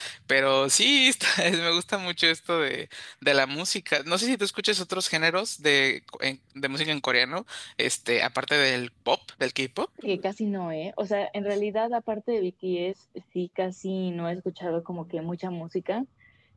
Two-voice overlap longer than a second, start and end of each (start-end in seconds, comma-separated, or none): none